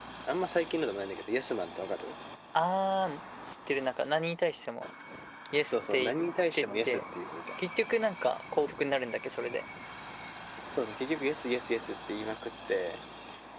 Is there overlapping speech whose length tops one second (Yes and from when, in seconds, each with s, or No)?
No